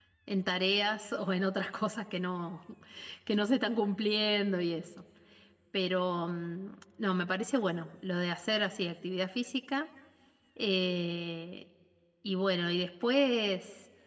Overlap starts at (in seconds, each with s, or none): none